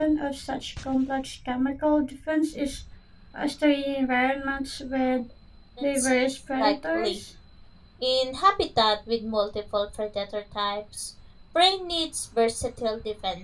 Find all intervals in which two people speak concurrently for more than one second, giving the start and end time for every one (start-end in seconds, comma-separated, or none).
5.9-7.2